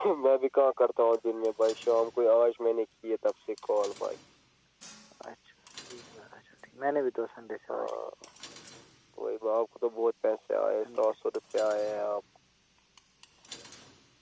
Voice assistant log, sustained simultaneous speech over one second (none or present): none